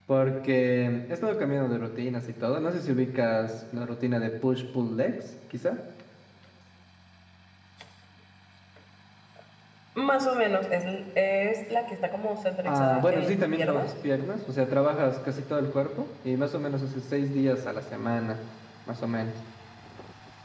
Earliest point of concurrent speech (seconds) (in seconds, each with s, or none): 12.7 s